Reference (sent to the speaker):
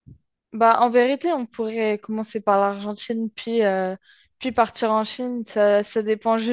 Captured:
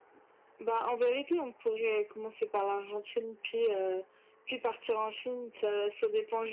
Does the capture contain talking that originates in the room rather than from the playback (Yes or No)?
No